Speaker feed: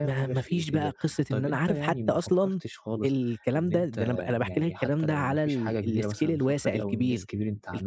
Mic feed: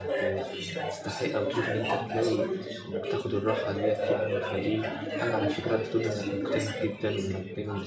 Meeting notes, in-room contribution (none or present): present